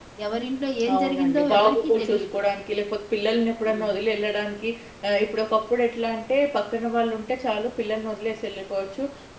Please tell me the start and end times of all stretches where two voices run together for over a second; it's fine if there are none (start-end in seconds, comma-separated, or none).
0.9-2.4